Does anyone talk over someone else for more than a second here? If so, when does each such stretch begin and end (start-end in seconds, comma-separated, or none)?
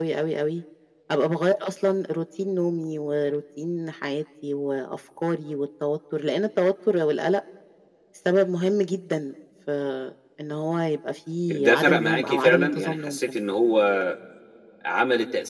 11.5-13.4